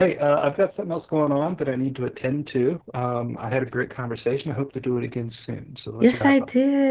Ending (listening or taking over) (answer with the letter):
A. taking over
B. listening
A